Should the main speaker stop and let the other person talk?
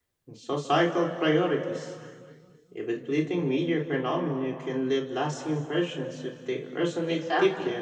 Yes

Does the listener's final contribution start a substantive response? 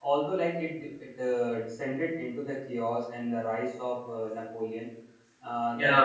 No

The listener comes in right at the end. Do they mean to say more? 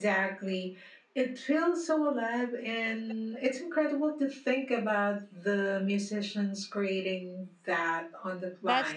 Yes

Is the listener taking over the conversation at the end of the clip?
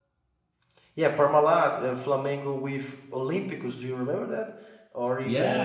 Yes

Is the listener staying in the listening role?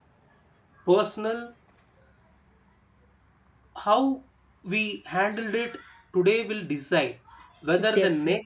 Yes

